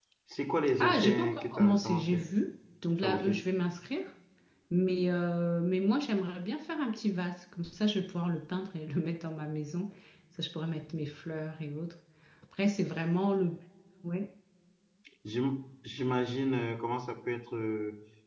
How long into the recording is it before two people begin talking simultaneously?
1 s

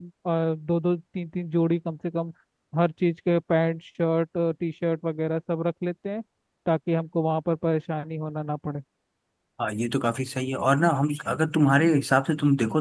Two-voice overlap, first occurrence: none

